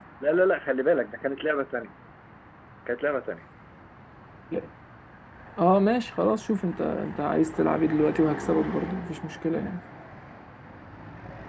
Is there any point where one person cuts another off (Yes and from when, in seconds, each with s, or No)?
No